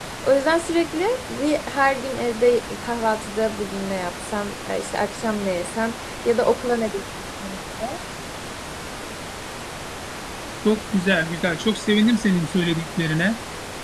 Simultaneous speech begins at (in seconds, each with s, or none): none